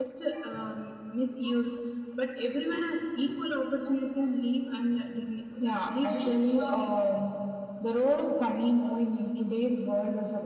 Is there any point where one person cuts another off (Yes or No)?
Yes